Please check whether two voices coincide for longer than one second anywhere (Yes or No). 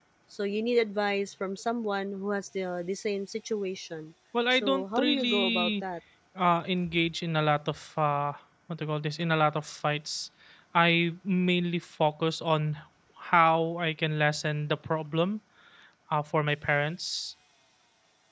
Yes